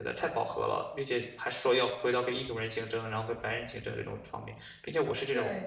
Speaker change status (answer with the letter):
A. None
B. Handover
A